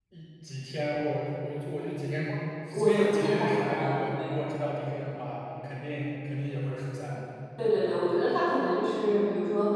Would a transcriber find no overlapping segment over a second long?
No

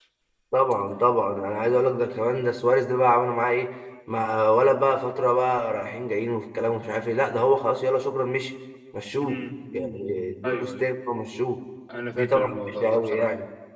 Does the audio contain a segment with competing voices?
Yes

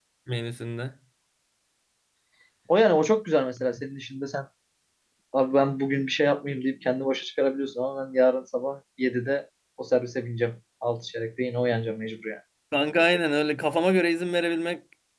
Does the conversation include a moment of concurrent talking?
No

